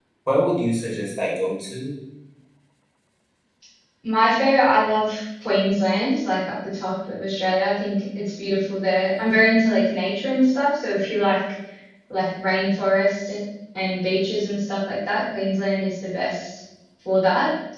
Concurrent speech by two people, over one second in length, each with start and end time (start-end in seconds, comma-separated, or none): none